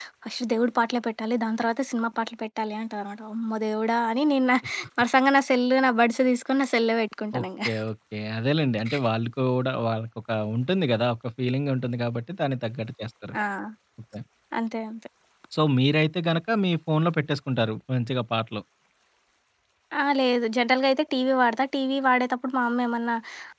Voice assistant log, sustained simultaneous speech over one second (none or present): none